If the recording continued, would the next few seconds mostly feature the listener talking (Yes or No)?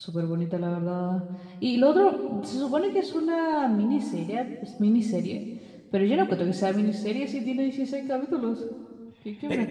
Yes